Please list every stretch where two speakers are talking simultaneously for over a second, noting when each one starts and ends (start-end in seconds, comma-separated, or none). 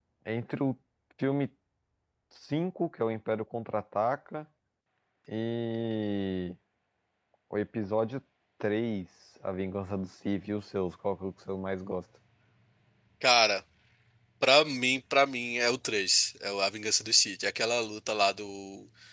none